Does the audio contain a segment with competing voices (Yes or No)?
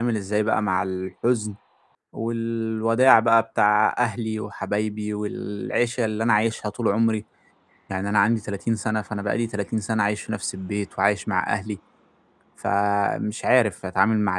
No